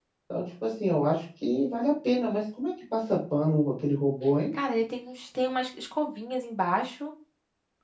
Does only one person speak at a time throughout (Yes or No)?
Yes